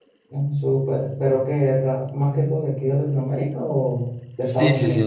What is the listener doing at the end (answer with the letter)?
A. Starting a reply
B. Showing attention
A